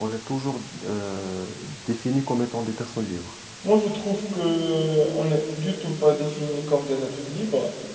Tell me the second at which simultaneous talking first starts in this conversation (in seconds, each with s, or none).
none